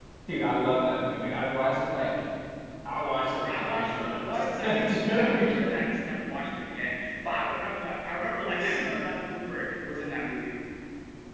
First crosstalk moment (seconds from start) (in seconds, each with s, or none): 3.4 s